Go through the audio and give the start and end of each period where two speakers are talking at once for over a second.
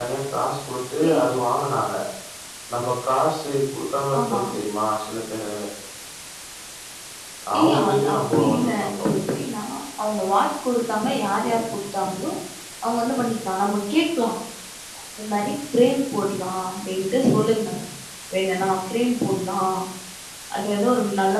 7.6-9.1

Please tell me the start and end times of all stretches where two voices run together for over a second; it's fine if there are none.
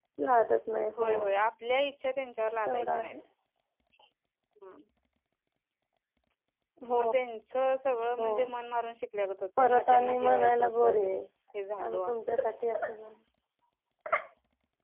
9.6-10.8

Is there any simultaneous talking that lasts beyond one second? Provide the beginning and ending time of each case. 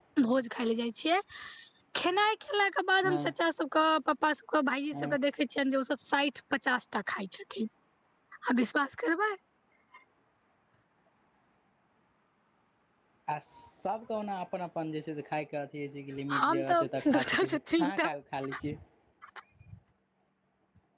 16.4-18.1

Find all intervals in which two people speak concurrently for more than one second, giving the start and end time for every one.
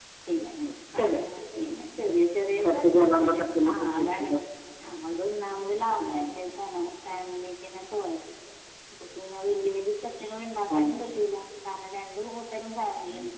2.6-4.3

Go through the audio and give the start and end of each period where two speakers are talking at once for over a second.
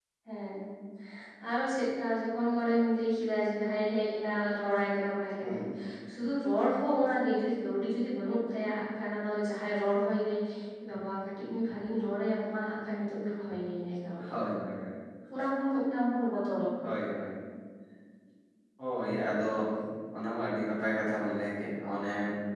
none

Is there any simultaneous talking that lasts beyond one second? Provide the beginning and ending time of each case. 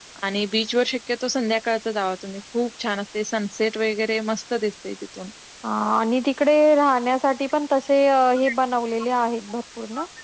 none

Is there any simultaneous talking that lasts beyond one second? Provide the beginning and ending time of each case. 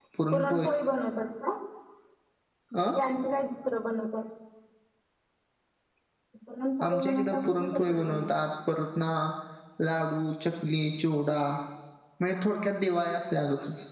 6.8-8.3

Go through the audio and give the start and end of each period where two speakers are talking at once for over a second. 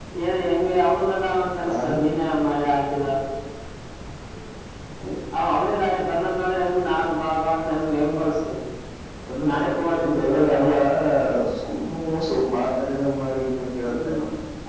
9.5-10.7

